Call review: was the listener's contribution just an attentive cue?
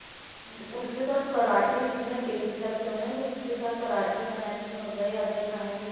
Yes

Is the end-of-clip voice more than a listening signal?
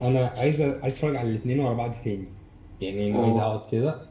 No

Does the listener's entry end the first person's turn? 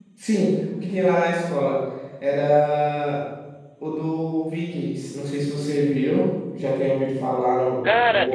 Yes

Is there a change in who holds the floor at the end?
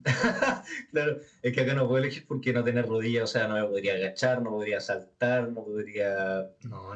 No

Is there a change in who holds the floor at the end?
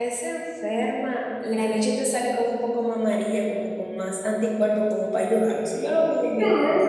Yes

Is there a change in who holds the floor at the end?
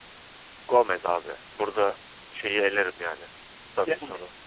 No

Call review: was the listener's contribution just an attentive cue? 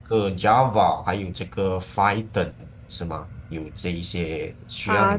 No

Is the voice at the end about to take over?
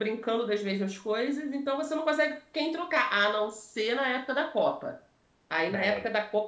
No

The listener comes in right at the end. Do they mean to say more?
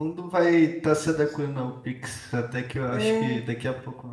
No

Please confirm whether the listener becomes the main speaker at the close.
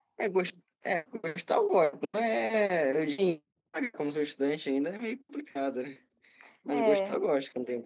No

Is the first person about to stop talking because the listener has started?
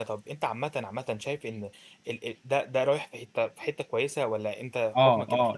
Yes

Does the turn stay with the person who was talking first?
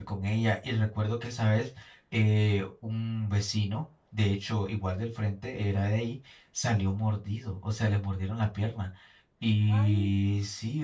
Yes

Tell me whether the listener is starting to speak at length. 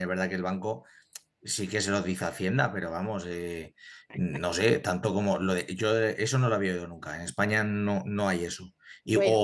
No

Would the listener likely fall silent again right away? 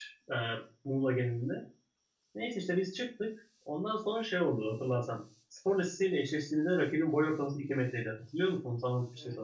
No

